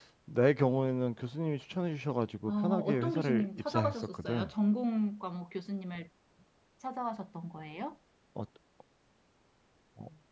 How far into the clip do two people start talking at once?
2.5 s

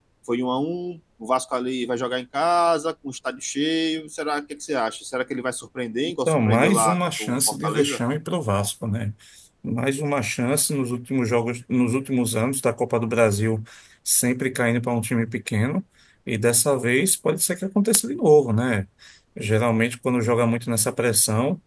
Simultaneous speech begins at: 6.3 s

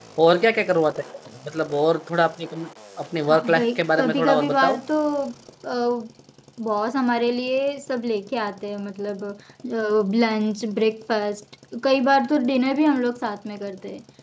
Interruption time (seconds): 3.3 s

